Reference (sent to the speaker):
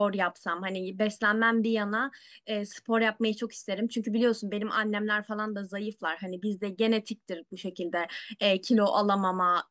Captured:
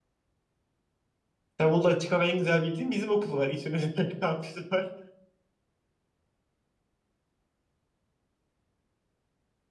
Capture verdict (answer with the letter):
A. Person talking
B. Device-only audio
A